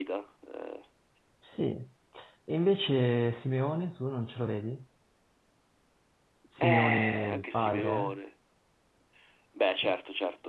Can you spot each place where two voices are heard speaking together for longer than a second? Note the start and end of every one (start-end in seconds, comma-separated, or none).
6.6-8.2